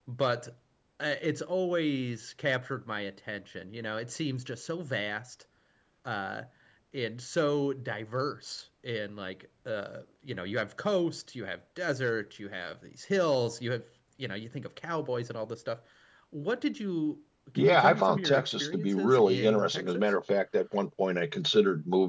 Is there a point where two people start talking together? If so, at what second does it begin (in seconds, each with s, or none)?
17.6 s